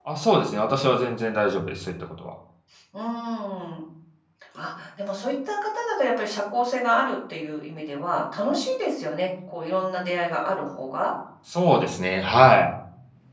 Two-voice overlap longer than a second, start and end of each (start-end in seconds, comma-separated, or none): none